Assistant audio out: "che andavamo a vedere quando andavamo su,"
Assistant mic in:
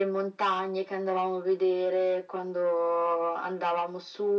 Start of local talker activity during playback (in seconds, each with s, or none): none